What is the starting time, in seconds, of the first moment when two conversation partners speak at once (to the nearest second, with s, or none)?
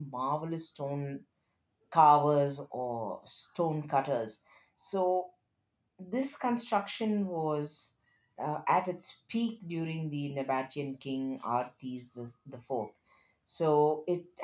none